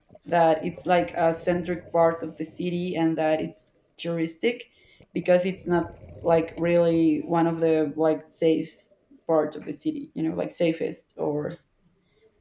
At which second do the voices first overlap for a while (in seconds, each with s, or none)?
none